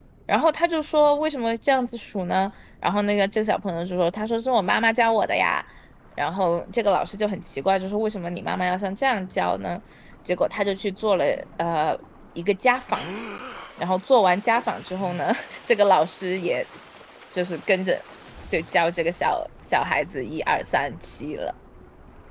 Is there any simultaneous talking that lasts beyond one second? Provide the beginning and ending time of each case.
none

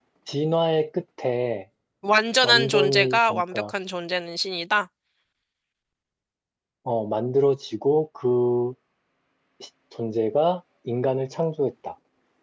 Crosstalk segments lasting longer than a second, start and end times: 2.4-3.7

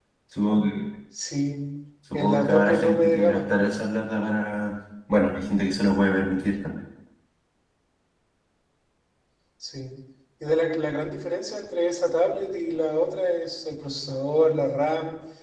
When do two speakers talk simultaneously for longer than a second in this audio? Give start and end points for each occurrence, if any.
2.1-3.4

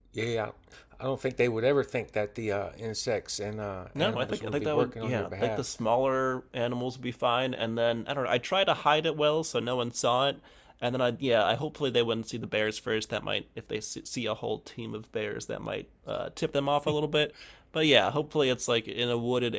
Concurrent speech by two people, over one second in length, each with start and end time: 4.0-5.6

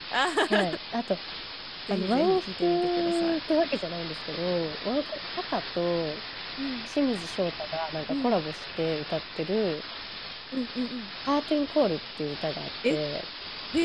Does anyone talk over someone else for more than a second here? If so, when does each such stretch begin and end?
1.9-3.4

